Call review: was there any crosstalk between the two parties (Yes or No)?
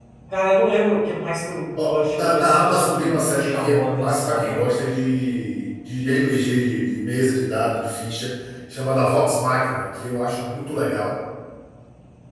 Yes